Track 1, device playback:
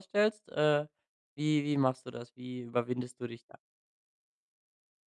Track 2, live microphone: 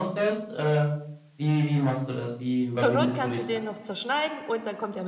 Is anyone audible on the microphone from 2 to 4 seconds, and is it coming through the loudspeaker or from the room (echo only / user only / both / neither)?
both